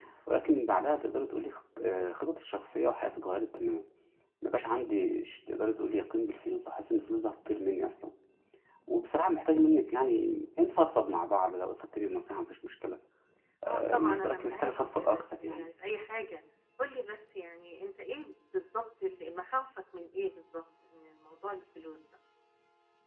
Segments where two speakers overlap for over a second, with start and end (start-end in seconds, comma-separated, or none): 13.6-15.7